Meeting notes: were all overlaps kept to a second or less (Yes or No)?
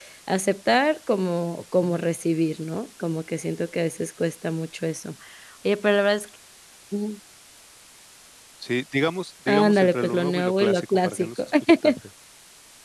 No